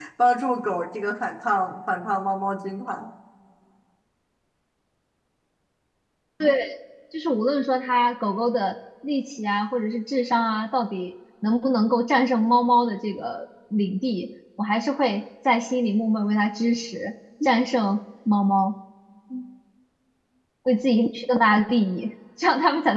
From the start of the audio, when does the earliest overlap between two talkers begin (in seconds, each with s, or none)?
none